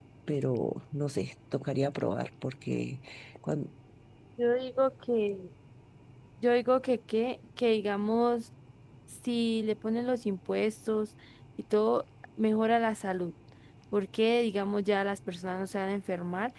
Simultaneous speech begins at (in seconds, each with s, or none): none